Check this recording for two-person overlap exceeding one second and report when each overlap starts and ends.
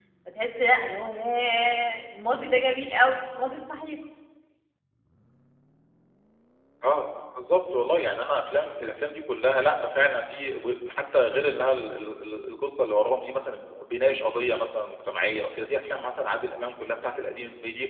none

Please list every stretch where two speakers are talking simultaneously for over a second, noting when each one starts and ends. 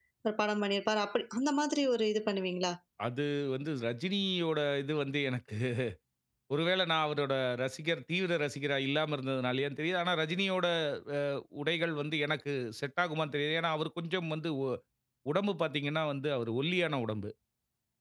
none

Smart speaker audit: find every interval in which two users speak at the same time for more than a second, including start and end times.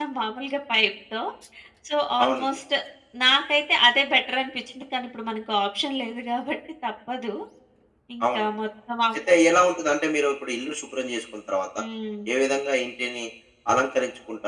none

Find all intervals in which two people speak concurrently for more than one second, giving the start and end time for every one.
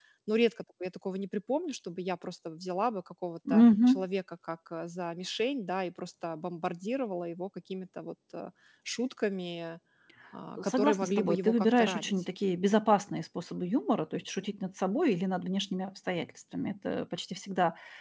10.6-12.2

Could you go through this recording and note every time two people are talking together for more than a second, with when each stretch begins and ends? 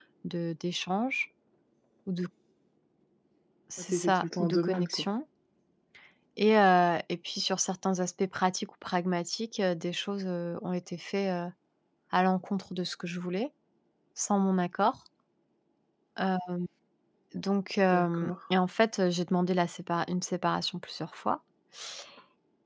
3.8-5.0

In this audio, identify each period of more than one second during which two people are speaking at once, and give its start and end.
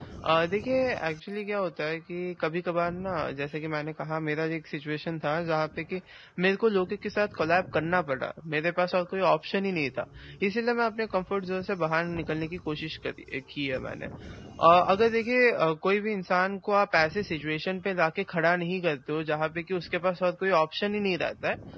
none

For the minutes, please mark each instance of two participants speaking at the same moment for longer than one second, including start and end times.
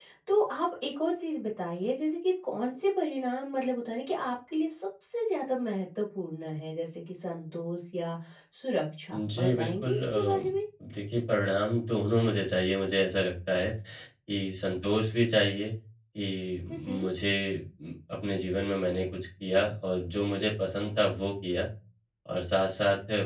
9.1-10.4

